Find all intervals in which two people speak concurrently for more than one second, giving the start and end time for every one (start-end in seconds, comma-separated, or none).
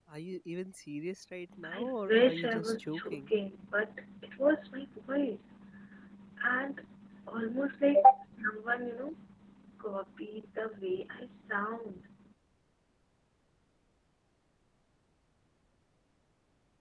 1.6-3.3